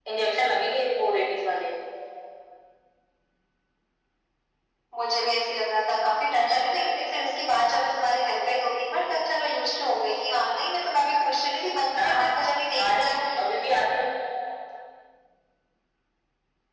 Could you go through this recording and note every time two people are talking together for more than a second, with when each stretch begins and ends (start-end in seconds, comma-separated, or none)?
none